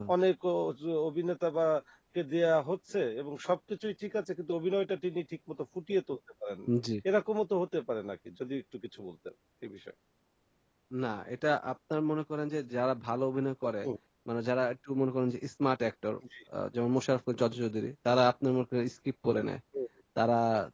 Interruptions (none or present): none